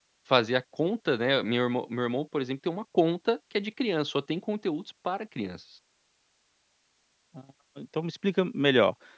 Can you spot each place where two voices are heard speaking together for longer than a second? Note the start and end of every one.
none

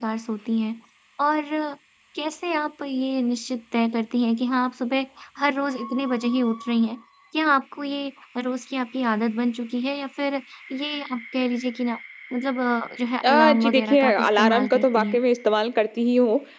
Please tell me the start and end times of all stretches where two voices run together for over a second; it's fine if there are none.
13.2-15.2

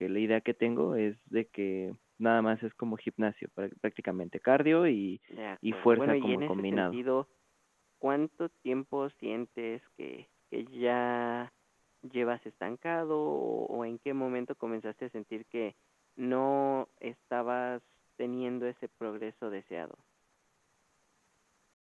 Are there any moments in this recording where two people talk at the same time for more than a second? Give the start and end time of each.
5.7-7.0

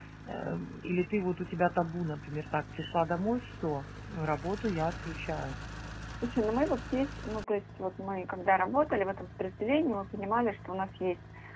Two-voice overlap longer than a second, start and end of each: none

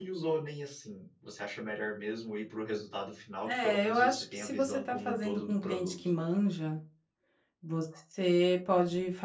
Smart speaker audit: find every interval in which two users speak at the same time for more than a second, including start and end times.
3.5-6.0

